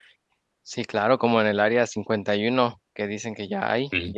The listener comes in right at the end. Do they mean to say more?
No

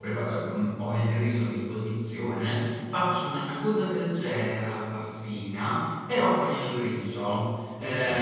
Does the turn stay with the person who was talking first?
Yes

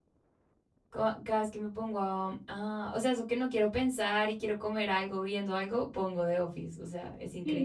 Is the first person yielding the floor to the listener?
Yes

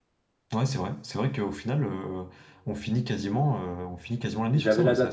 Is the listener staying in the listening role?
No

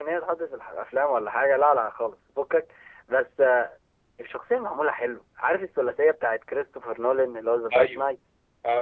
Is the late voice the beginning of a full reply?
Yes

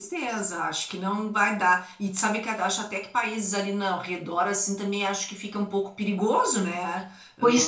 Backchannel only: No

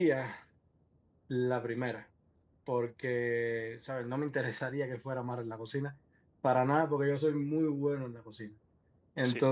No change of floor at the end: Yes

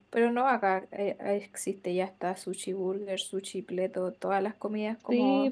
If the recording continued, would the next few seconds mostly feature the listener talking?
Yes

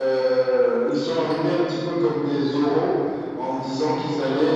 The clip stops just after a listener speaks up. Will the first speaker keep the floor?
Yes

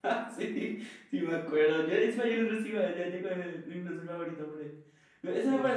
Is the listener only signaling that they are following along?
Yes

